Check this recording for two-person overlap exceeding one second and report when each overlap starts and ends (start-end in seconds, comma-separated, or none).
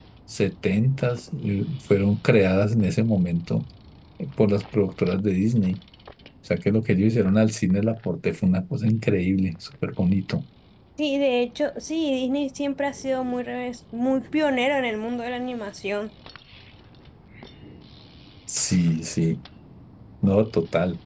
none